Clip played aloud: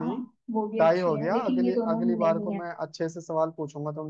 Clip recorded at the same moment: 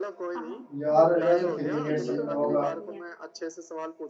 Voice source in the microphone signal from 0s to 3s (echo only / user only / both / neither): both